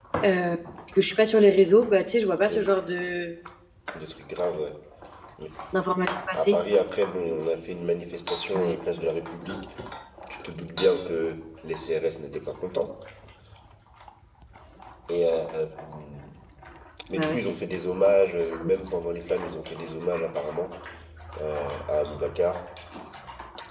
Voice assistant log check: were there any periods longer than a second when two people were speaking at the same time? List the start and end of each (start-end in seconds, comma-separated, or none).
none